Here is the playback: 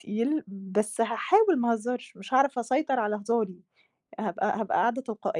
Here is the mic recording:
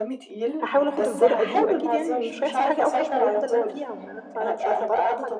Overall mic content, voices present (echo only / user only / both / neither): both